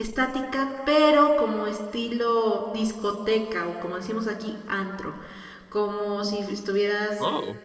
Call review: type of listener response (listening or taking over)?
taking over